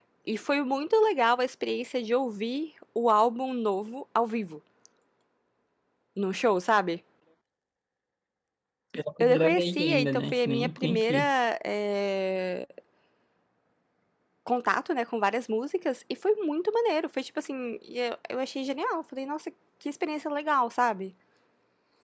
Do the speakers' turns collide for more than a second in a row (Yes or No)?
Yes